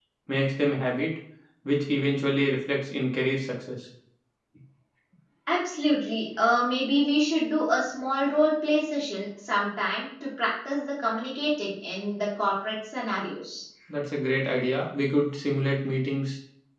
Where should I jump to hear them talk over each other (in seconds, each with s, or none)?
none